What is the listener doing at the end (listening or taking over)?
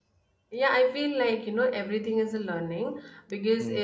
listening